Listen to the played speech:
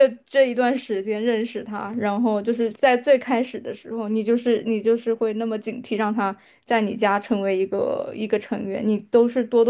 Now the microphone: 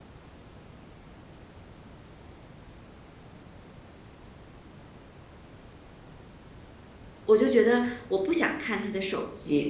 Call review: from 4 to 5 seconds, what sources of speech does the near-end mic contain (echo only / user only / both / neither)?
neither